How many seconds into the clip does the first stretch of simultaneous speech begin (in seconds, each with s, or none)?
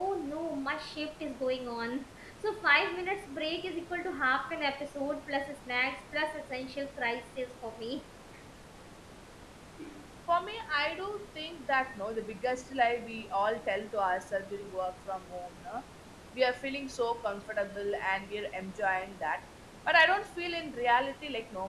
none